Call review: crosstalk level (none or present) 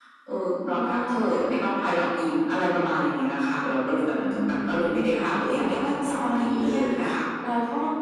present